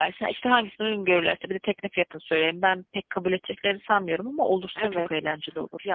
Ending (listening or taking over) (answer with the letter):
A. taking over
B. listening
A